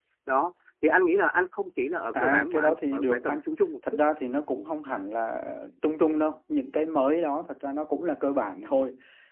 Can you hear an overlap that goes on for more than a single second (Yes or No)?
Yes